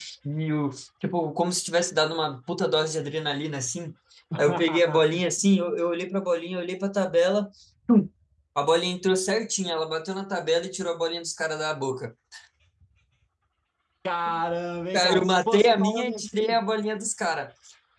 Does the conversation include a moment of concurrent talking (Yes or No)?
Yes